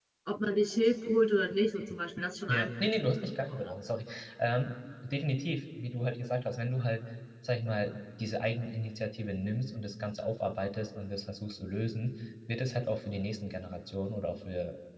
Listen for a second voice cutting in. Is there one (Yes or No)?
Yes